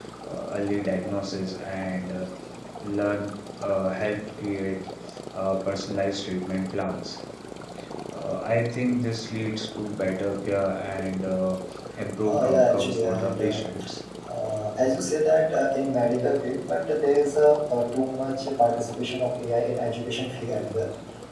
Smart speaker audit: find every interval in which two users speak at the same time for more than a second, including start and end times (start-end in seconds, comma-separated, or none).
12.2-13.6